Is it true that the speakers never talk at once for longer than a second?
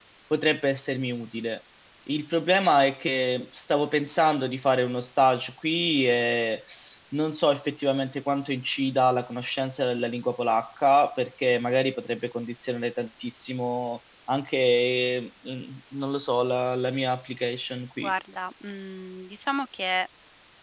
Yes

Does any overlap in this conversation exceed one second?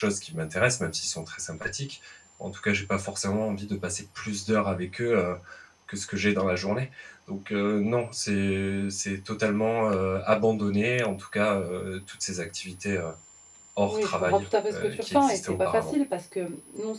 Yes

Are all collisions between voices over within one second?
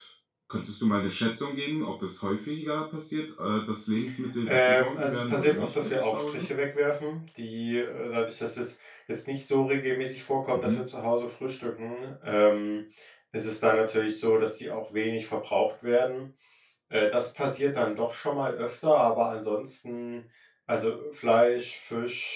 No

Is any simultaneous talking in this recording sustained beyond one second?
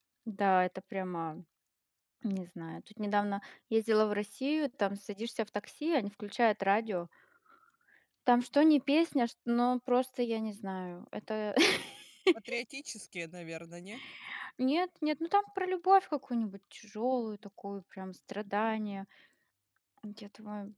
No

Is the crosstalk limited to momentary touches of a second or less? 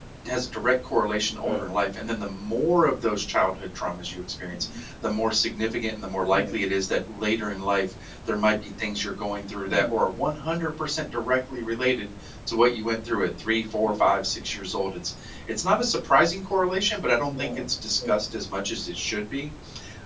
Yes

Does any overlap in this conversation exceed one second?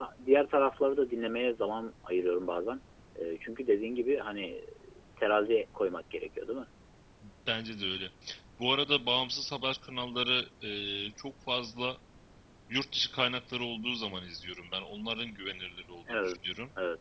No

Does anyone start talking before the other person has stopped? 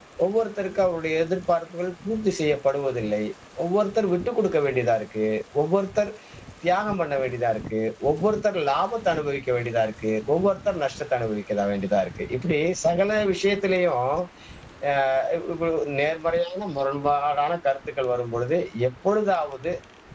No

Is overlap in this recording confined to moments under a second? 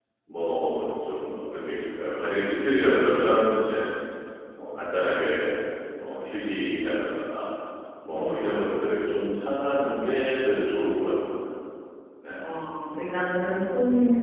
Yes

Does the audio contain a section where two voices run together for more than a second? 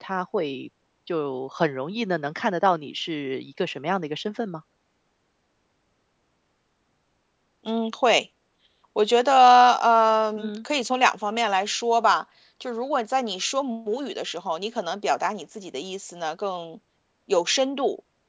No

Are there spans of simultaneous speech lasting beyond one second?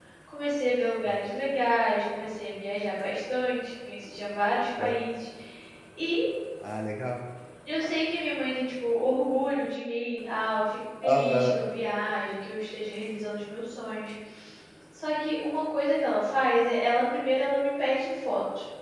No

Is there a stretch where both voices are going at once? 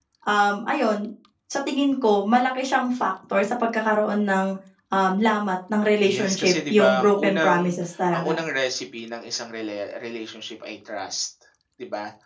Yes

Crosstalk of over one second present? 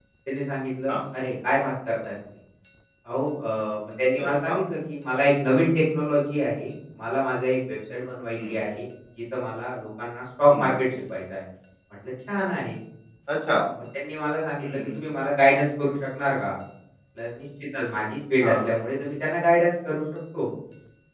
No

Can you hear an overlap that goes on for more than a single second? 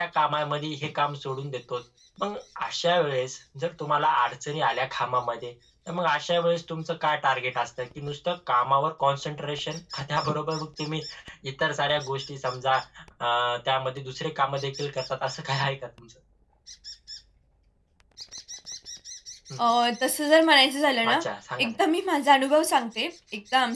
No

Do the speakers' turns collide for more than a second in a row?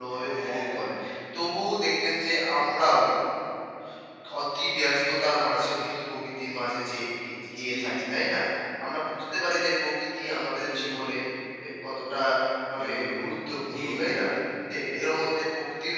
Yes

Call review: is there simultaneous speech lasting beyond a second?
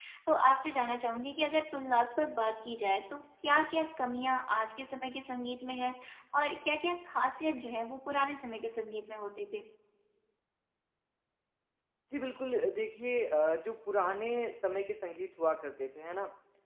No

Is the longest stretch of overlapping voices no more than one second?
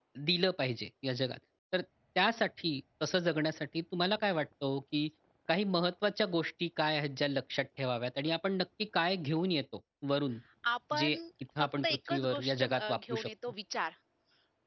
No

